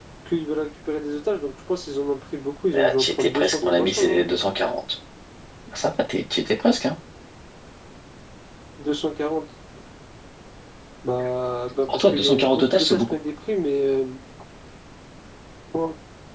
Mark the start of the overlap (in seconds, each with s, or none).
2.7 s